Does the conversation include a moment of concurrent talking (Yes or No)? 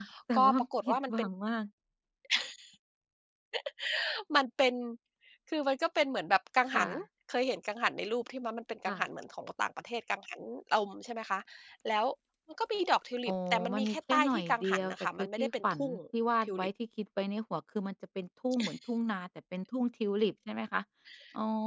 Yes